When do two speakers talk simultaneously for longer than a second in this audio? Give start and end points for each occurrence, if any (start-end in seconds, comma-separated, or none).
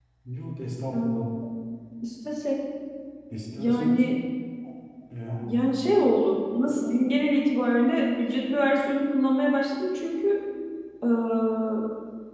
none